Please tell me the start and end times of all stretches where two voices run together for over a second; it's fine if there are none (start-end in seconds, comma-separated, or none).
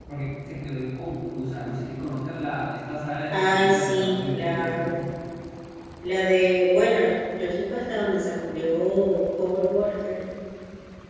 3.3-4.9